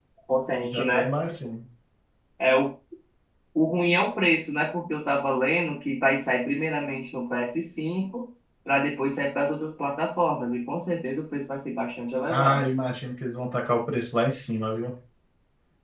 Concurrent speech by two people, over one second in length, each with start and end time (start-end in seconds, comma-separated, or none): none